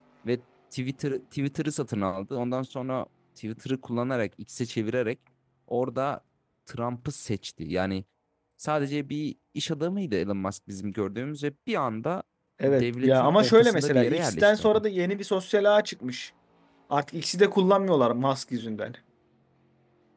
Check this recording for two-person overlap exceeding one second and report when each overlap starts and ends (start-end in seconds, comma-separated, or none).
12.7-14.8